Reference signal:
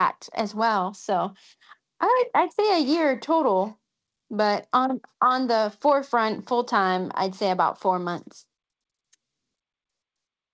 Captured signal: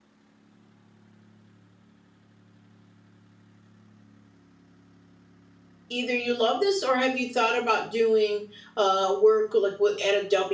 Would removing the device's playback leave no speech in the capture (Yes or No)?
No